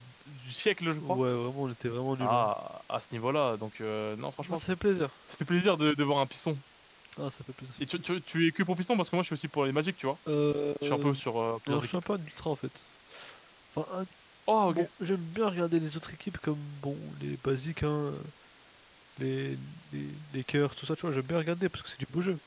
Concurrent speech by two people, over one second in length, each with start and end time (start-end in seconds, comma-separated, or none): none